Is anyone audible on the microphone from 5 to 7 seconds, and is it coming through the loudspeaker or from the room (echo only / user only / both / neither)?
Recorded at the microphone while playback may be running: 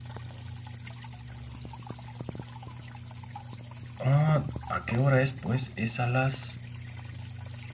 user only